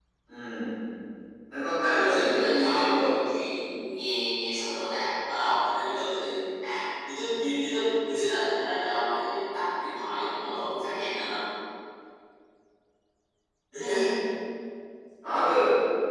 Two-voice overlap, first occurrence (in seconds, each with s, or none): 1.8 s